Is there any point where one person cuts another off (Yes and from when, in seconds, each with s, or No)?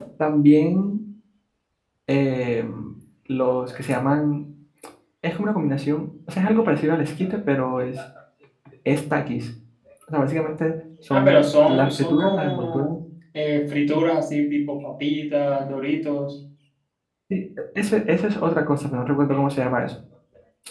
Yes, from 11.1 s